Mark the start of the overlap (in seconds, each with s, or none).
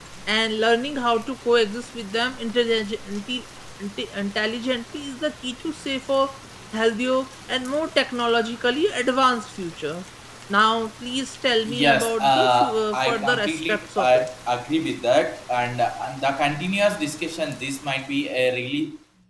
11.6 s